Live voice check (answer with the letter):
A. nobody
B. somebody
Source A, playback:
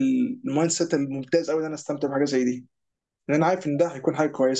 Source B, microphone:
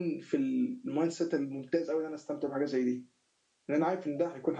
A